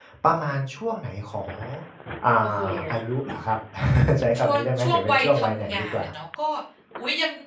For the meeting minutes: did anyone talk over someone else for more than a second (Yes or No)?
Yes